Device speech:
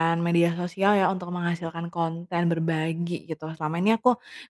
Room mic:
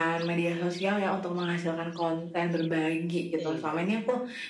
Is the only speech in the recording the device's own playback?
No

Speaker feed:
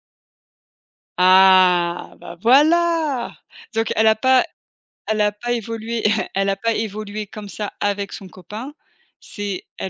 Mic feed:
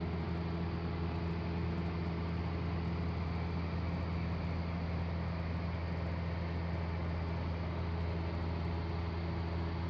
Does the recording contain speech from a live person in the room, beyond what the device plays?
No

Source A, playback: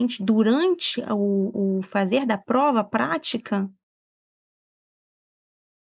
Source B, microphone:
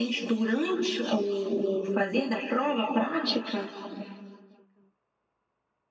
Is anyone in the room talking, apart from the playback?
No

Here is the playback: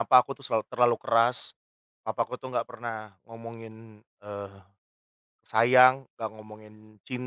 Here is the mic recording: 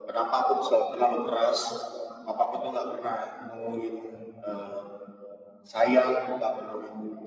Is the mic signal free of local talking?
Yes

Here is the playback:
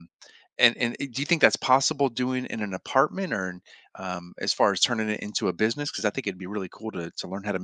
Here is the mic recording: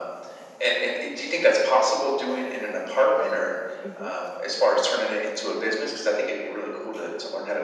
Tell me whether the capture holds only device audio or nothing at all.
No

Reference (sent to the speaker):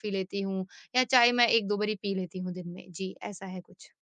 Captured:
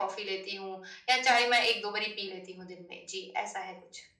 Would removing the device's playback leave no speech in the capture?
Yes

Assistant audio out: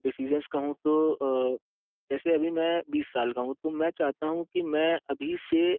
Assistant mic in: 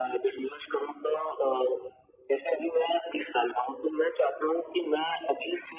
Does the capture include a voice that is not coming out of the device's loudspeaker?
No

